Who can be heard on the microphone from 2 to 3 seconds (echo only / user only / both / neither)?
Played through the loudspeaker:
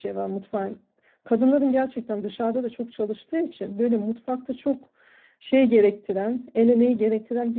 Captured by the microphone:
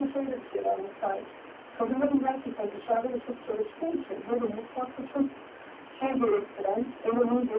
echo only